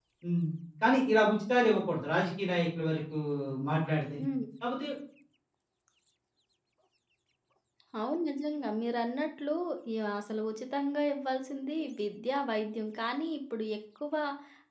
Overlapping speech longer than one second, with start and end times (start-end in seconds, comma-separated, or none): none